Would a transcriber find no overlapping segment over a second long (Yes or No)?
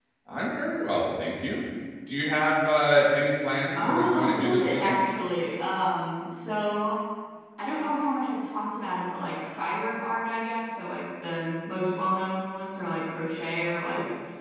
No